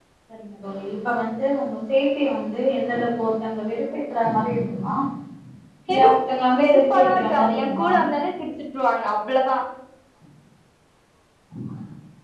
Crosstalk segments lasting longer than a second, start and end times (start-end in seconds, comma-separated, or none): 6.6-7.9